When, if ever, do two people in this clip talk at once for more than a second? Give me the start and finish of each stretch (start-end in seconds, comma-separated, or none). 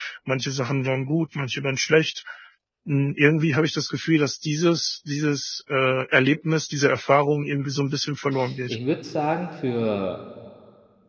none